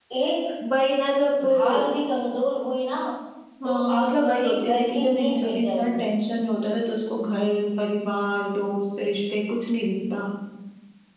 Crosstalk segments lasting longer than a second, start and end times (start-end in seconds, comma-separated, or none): 3.6-6.0